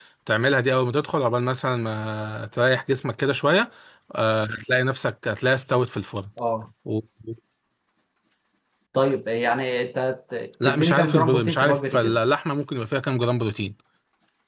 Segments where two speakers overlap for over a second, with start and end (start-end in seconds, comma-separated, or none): 10.7-12.2